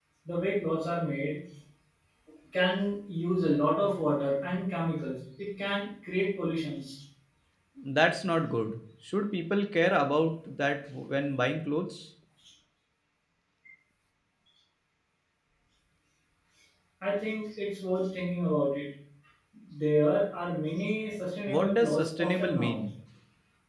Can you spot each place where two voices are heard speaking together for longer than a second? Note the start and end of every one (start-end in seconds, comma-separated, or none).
21.5-22.8